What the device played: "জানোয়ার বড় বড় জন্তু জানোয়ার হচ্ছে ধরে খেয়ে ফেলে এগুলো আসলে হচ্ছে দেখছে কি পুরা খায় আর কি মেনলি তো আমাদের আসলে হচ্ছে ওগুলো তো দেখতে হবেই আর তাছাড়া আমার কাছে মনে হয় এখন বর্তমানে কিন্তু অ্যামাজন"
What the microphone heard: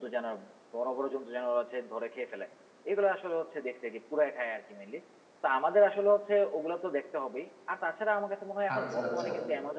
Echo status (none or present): present